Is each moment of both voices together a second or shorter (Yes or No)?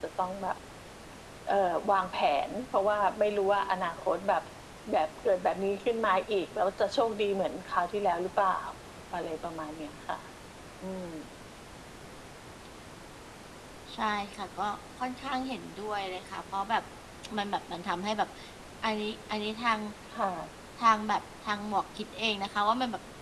Yes